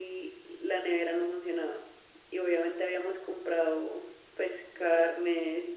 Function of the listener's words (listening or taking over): listening